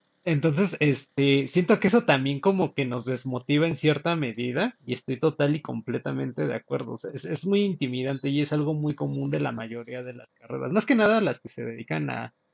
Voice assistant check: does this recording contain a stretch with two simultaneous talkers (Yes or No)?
No